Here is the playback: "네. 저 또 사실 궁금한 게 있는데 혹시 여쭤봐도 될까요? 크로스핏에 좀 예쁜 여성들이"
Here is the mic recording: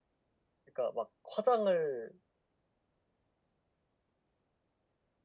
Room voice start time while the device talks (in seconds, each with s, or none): 0.7 s